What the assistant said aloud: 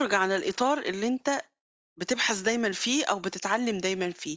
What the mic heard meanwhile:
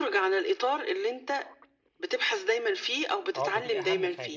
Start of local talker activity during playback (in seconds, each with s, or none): 3.4 s